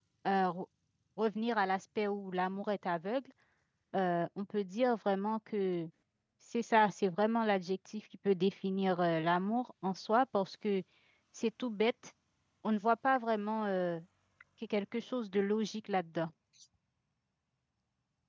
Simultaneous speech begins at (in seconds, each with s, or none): none